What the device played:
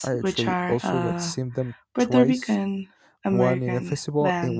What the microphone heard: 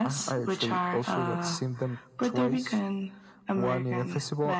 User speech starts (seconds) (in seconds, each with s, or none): none